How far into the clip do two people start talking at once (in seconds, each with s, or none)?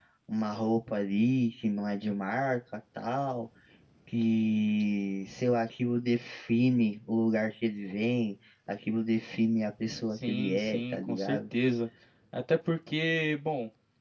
10.1 s